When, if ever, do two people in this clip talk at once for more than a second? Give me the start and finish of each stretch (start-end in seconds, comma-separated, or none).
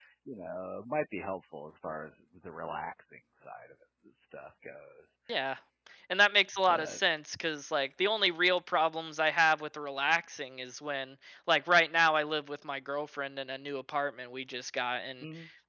none